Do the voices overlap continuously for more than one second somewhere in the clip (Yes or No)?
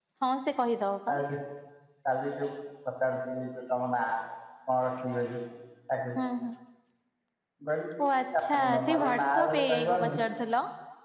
Yes